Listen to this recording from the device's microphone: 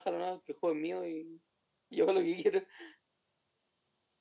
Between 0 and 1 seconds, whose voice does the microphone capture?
echo only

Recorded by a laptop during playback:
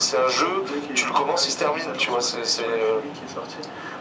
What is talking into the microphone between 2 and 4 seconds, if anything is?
echo only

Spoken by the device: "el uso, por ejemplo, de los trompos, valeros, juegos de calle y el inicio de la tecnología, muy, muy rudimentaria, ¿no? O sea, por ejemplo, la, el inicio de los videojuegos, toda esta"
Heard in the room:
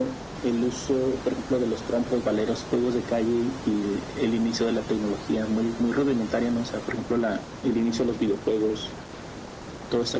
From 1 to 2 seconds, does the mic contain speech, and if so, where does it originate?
echo only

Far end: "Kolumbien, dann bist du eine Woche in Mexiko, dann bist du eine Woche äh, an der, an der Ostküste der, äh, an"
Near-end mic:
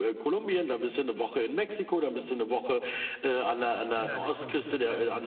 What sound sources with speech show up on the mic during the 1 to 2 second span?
echo only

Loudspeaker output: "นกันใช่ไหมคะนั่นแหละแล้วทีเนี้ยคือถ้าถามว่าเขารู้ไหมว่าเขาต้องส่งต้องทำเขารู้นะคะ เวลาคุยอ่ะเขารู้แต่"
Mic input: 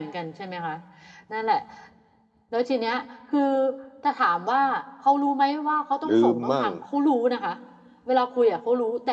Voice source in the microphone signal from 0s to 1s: echo only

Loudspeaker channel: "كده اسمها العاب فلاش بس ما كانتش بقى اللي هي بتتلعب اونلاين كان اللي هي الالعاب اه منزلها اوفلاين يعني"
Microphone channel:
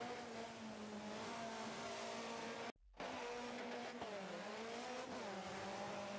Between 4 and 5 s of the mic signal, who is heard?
neither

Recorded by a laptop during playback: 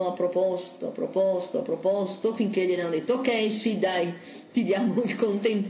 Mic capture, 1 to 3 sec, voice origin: echo only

